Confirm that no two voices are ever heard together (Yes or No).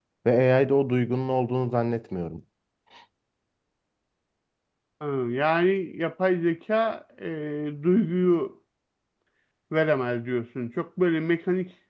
Yes